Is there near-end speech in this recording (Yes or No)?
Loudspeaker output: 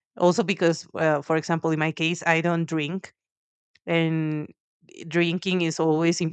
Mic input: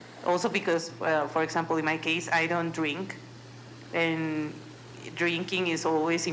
No